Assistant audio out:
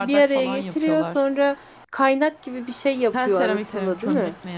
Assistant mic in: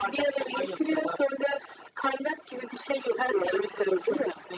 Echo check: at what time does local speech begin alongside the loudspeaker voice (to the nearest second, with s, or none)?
none